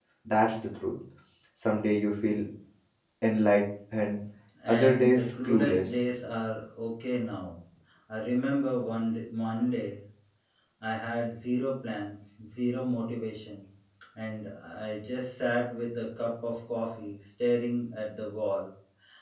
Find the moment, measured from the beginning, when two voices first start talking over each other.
4.7 s

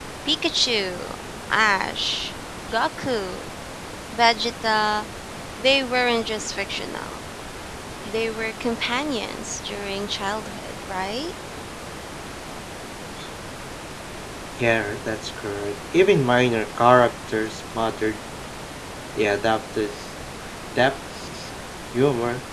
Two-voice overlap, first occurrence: none

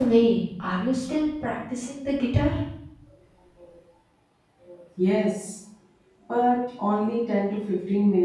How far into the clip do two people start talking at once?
none

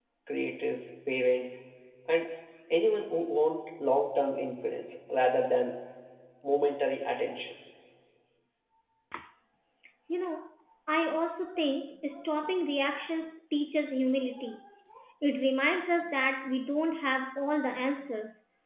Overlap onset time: none

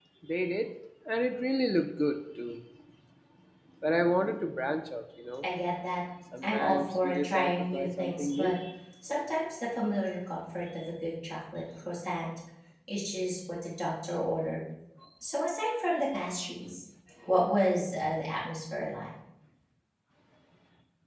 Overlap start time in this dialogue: 6.4 s

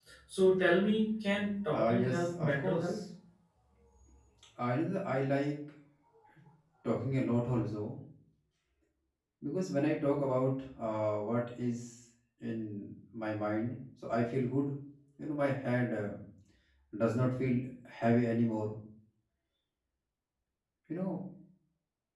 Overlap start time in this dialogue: 1.7 s

